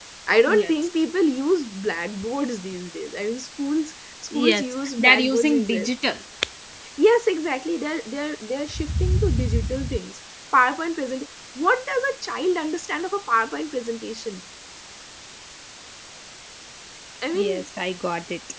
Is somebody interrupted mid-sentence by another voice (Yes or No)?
Yes